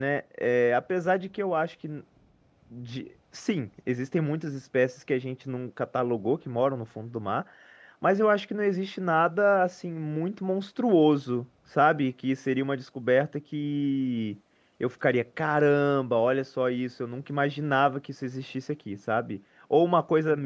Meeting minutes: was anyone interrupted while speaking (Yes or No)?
No